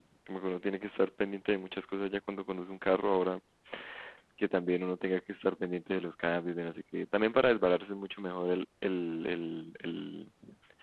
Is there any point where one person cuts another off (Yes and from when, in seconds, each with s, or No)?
No